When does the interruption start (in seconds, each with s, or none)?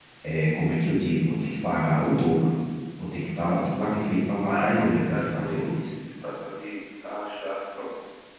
4.5 s